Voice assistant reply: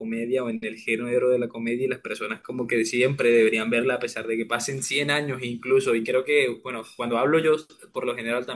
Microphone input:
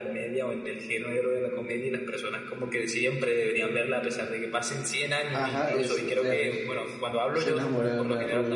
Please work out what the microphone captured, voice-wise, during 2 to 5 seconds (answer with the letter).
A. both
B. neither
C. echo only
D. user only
C